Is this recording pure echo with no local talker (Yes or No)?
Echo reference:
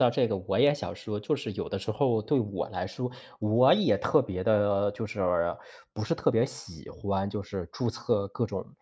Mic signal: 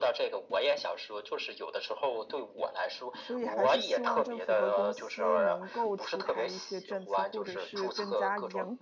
No